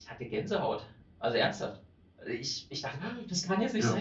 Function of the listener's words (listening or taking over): listening